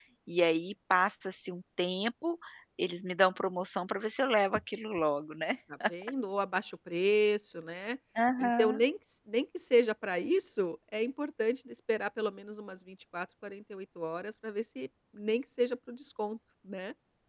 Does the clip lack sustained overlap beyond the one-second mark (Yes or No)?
Yes